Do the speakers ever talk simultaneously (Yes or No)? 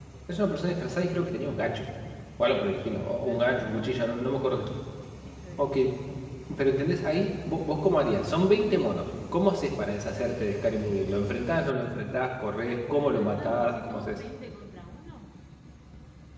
Yes